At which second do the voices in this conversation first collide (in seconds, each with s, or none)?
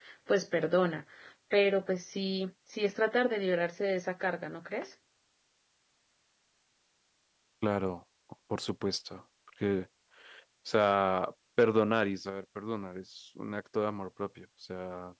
none